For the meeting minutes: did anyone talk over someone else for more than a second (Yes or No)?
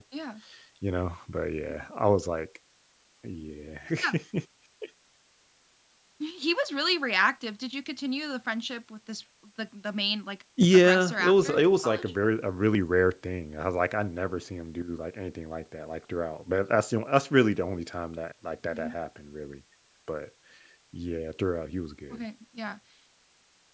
Yes